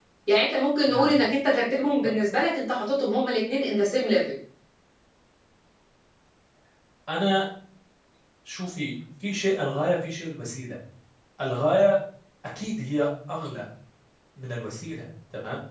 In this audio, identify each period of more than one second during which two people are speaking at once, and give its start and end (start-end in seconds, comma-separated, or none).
none